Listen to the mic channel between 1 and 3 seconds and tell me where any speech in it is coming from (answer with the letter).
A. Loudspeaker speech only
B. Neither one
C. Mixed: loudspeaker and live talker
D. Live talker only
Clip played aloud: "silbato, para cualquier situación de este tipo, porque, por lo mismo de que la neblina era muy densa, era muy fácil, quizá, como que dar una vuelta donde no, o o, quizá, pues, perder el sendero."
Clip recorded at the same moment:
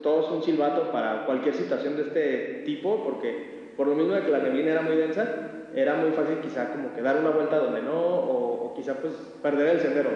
A